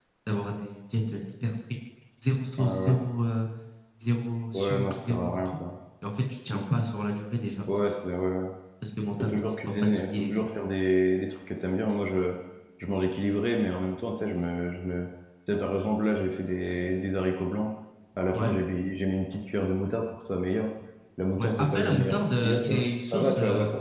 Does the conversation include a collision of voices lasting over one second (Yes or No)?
Yes